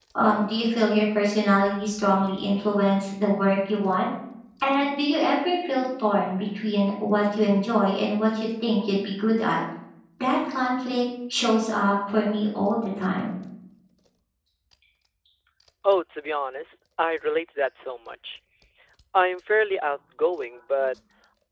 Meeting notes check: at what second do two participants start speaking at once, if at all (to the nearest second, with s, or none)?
none